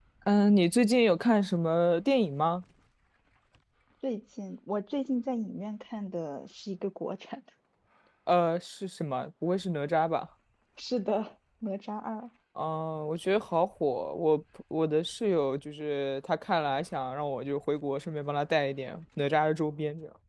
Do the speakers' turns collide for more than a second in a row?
No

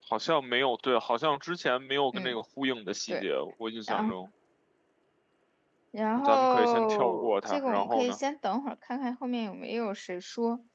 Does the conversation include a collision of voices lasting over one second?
Yes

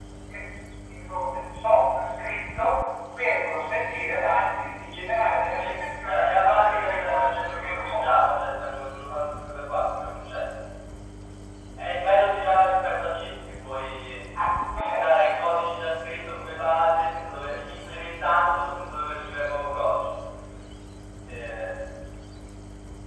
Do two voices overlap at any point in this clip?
Yes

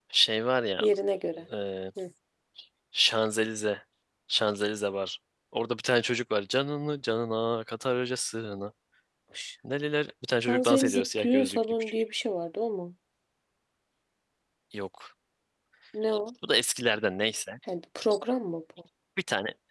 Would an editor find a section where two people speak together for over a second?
Yes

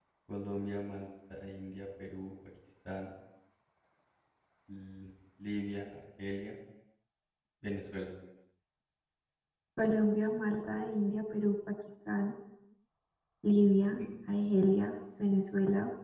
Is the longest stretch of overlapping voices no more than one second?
Yes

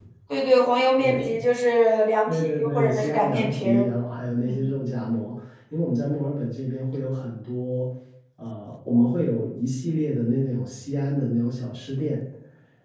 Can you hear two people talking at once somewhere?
Yes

